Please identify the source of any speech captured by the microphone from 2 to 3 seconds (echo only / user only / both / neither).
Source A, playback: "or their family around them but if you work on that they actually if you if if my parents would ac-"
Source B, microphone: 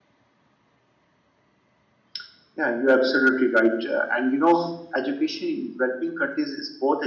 user only